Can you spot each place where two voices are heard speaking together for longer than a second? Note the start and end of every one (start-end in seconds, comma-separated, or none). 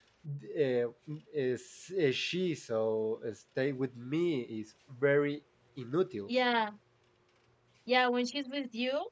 none